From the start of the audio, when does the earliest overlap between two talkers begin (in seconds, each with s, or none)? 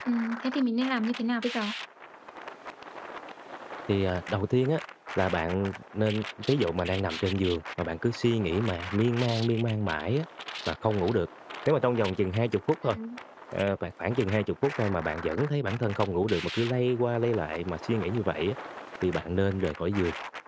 none